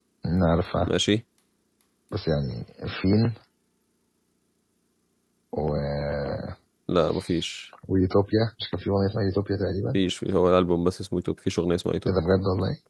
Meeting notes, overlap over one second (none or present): none